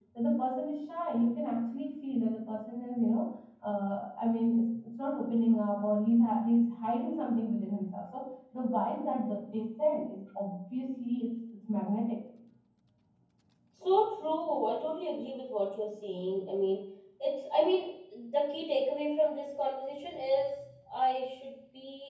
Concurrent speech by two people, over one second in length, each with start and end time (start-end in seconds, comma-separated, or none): none